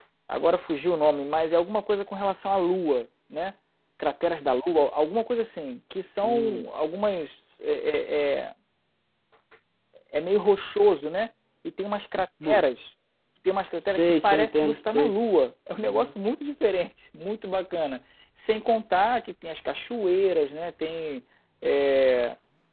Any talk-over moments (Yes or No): Yes